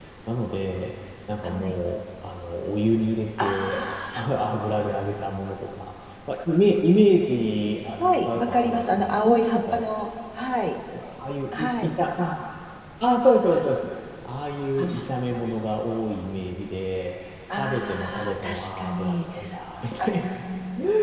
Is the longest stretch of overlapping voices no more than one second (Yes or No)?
No